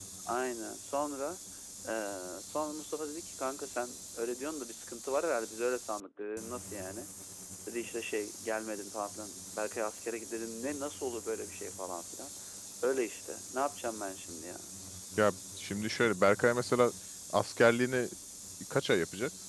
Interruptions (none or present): none